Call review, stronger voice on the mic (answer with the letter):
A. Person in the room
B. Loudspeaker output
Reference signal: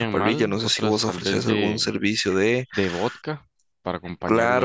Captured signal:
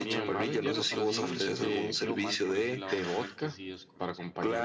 B